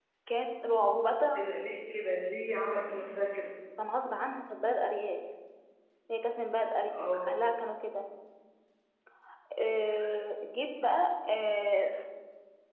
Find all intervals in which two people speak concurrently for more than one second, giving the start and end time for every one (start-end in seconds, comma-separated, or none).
none